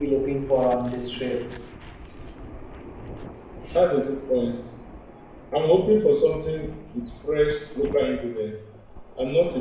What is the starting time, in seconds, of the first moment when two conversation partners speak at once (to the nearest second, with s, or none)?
none